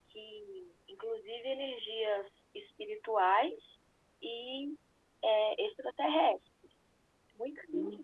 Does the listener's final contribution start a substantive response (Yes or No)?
No